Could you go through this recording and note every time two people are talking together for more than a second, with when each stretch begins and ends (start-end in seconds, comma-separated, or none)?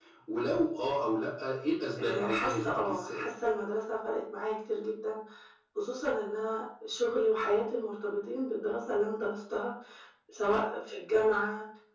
2.0-3.2